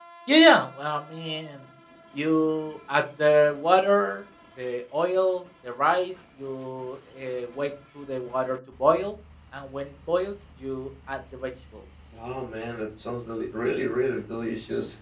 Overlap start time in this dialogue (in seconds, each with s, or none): none